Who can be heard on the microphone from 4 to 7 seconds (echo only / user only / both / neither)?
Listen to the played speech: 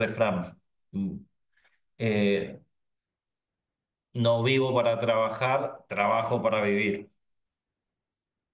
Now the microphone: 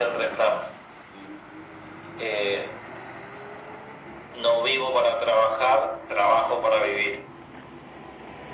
echo only